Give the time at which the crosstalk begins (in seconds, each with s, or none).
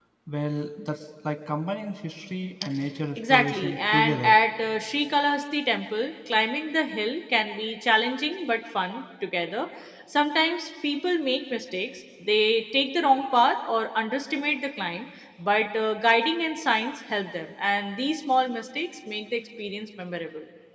3.2 s